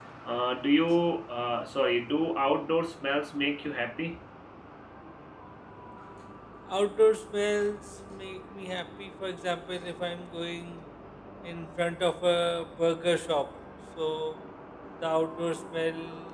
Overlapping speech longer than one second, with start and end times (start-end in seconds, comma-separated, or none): none